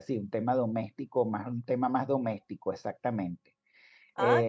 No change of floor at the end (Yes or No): No